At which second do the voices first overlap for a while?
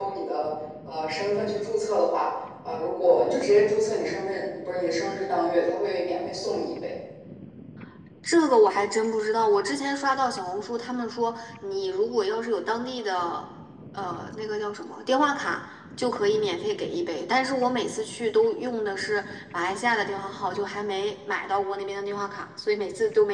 none

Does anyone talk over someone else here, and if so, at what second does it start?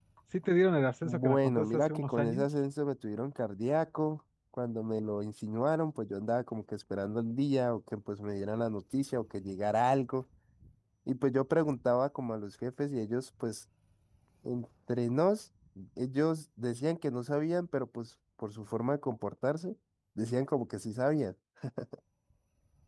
1.0 s

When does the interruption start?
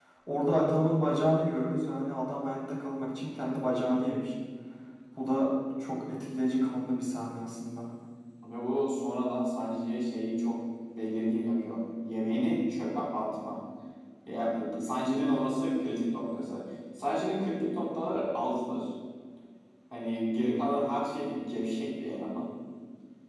none

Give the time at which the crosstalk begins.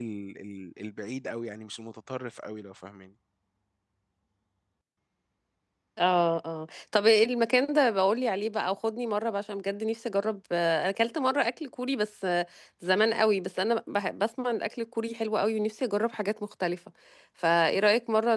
none

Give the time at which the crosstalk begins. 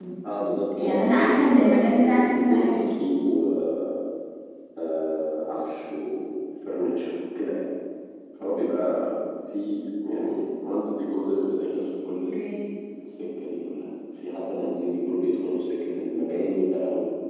0.8 s

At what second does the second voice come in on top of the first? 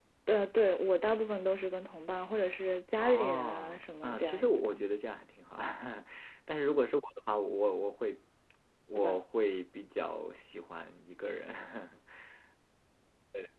3.0 s

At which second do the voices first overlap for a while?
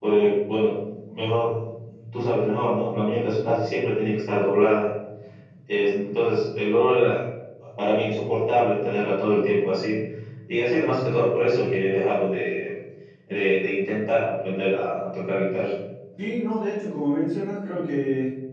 none

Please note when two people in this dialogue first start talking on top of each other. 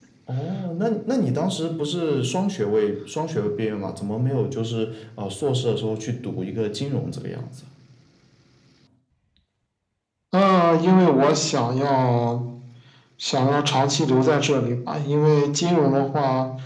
none

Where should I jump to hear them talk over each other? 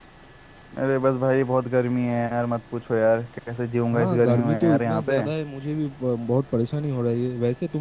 3.9 s

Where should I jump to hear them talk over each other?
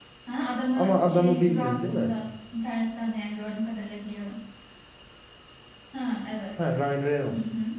0.7 s

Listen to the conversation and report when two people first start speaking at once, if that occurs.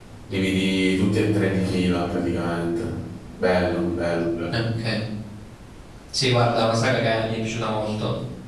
none

